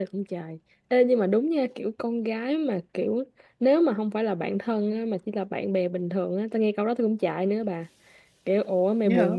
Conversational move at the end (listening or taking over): listening